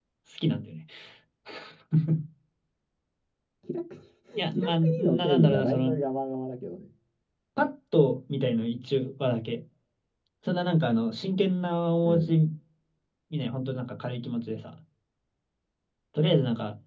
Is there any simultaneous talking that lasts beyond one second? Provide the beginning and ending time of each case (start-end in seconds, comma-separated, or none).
4.5-5.9